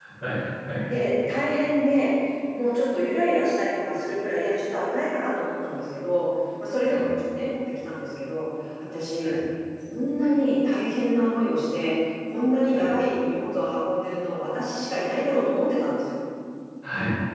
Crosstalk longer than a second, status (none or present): none